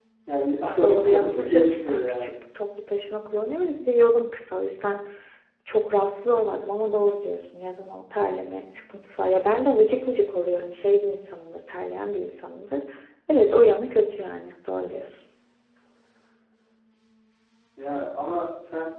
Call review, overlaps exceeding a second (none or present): present